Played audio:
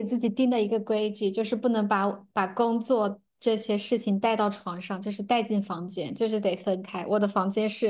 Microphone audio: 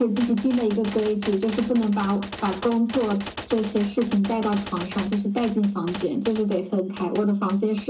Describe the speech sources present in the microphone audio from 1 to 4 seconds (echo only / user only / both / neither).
echo only